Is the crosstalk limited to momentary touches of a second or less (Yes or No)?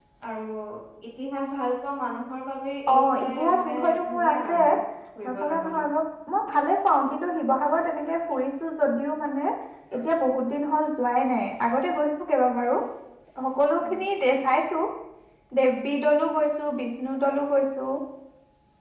No